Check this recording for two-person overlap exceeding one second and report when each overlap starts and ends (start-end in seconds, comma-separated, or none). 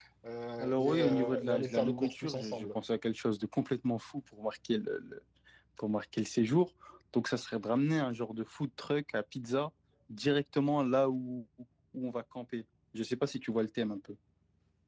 0.6-2.8